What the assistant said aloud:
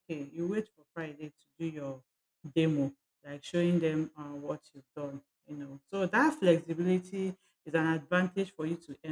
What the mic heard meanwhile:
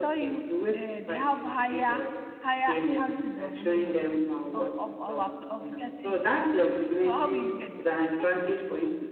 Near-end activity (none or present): present